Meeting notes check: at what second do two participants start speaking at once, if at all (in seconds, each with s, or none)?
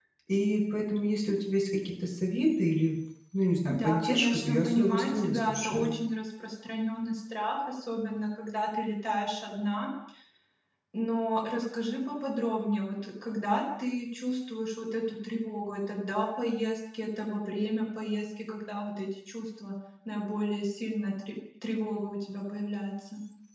3.7 s